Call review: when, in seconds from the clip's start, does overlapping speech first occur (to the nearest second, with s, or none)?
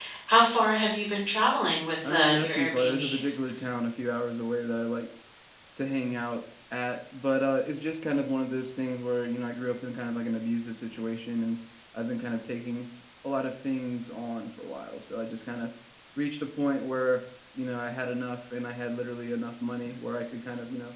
2 s